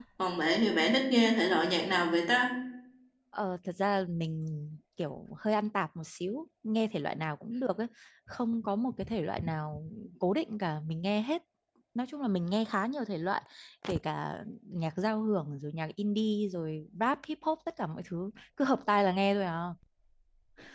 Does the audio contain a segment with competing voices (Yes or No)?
No